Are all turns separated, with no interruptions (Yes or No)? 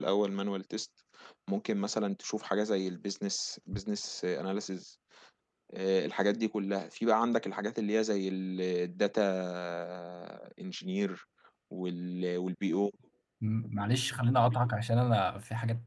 Yes